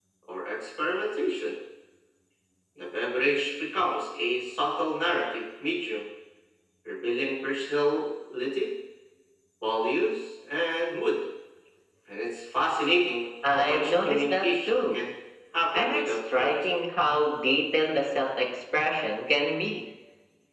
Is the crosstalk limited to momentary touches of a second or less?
No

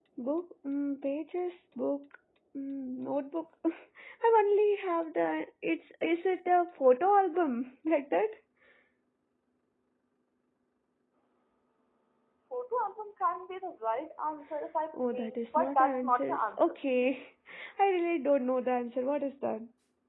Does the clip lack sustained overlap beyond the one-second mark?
No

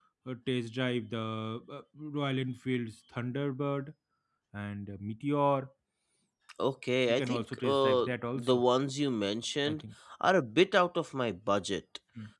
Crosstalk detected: Yes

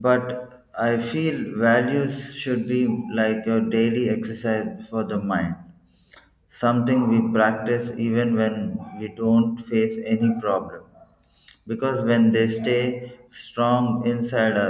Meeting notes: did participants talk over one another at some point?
No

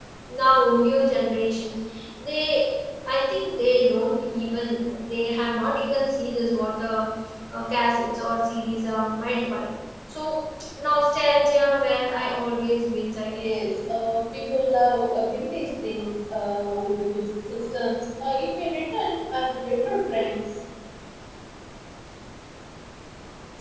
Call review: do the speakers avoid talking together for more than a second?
Yes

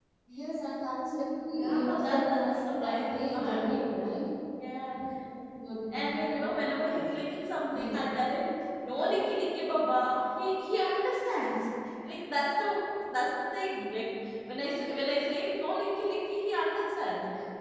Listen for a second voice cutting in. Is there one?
Yes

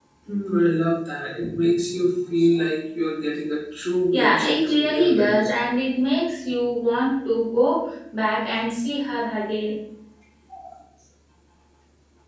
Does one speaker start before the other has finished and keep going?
Yes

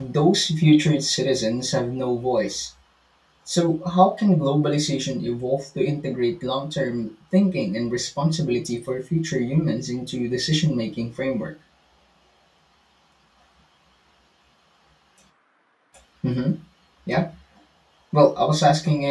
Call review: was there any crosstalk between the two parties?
No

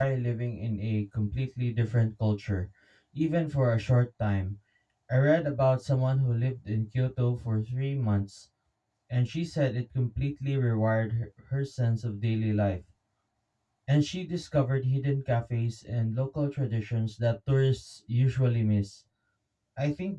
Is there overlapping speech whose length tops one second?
No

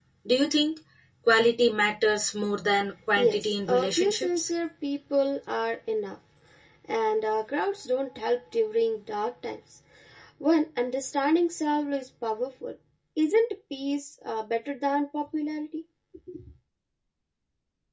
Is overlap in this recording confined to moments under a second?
No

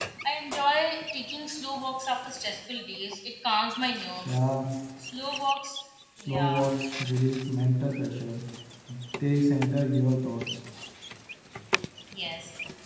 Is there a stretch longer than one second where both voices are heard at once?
No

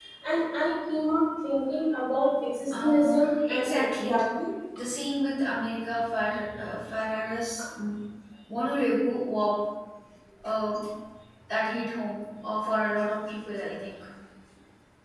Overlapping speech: Yes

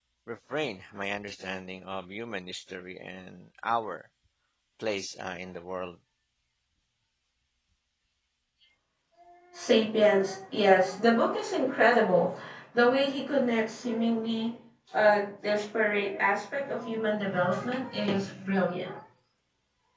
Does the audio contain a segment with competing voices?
No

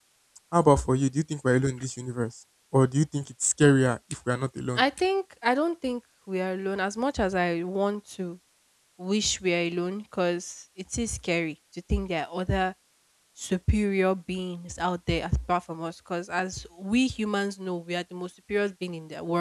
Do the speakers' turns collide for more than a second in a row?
No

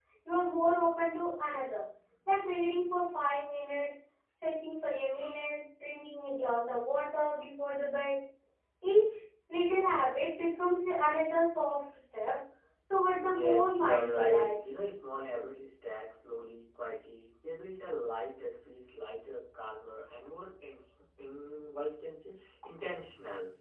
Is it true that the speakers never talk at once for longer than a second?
No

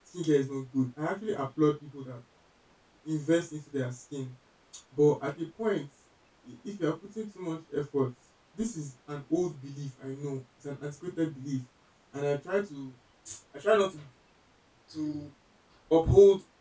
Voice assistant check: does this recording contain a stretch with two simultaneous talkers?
No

